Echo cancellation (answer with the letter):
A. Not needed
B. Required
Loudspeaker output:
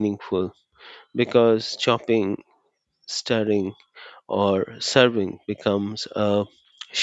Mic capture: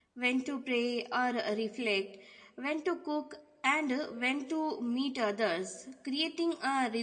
A